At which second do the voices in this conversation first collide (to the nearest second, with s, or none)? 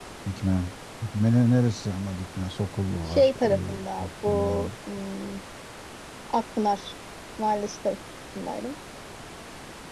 3 s